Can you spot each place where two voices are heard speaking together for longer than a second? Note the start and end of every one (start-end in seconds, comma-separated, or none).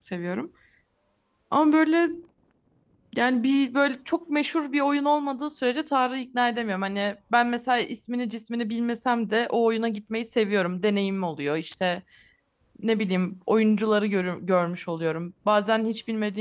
none